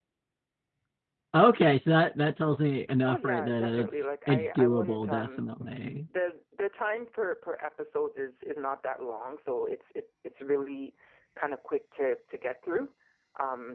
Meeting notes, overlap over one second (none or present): present